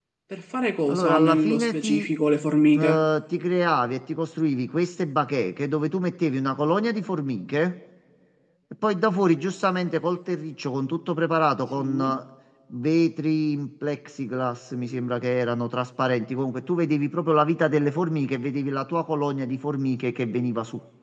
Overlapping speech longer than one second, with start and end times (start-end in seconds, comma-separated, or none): 0.9-2.1